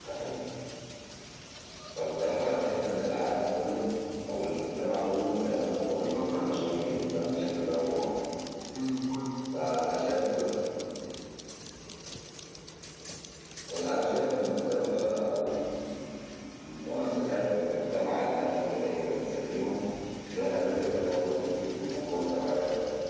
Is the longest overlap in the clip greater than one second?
Yes, from 5.8 s

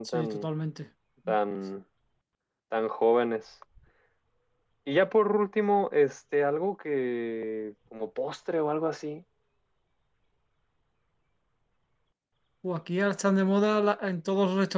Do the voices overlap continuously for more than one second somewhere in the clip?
No

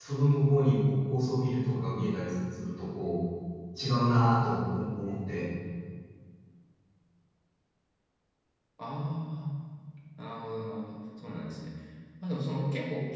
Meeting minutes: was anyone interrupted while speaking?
No

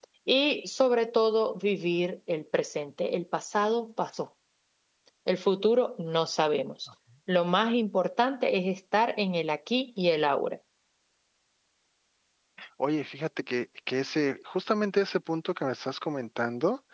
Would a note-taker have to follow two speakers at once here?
No

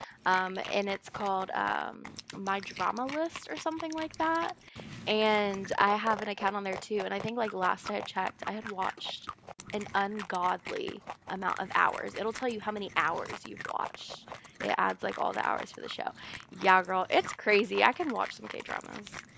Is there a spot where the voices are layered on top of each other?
No

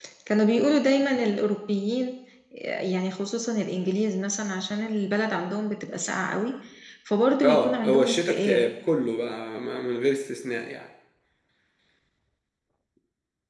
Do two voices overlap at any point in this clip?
Yes, from 7.4 s

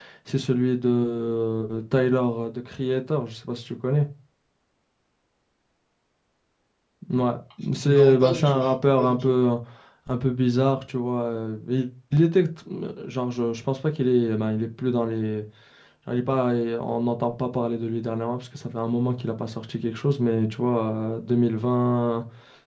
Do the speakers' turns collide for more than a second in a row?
Yes, from 7.8 s

